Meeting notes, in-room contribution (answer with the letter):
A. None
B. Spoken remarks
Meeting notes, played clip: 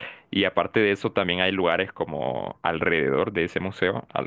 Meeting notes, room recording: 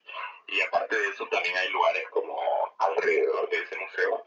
A